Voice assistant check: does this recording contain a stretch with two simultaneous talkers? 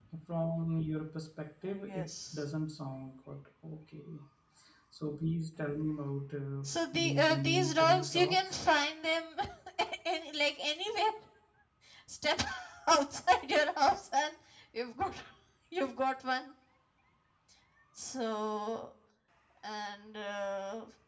Yes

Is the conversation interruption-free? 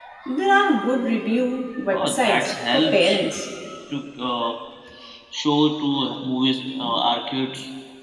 No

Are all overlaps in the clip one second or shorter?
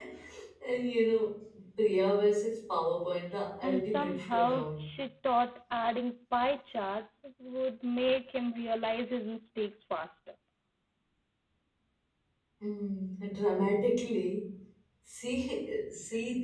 No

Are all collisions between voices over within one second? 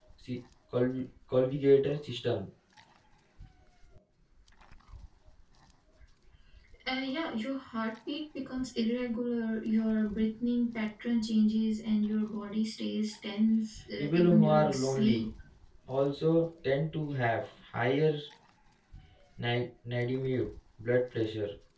No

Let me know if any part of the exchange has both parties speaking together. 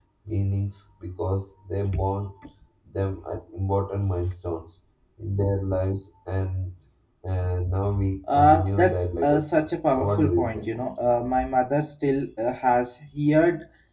Yes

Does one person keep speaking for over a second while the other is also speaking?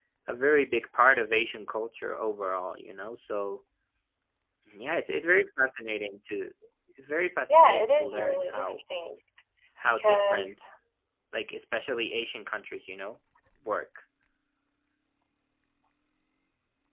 Yes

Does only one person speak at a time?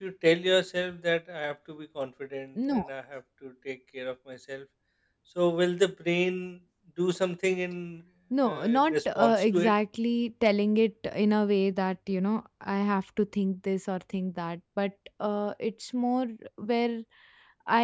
No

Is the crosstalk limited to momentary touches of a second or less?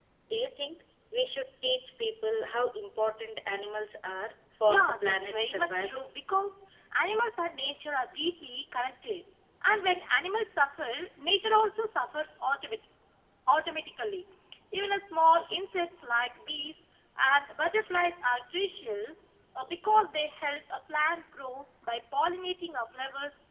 No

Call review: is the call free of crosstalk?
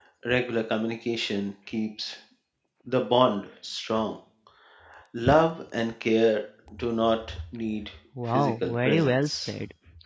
No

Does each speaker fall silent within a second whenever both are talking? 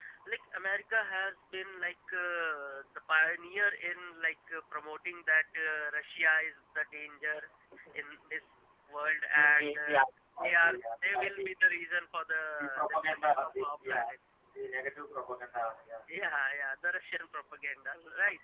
No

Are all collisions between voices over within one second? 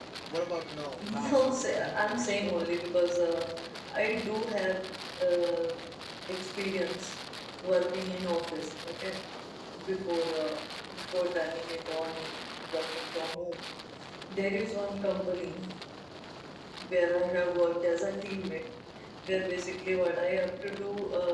No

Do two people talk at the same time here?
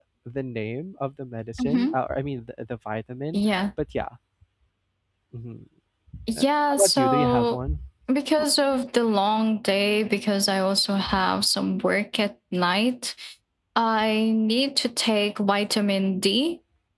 Yes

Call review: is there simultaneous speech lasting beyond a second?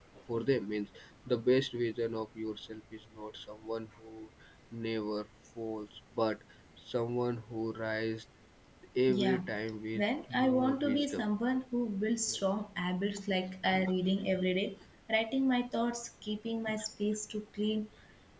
Yes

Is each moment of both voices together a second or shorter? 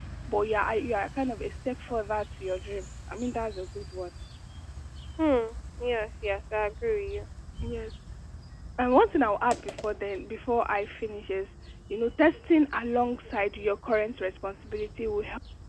Yes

